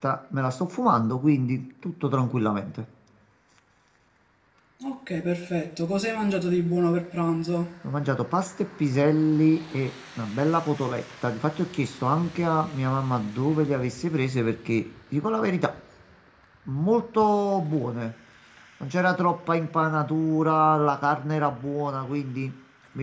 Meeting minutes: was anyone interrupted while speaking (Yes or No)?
No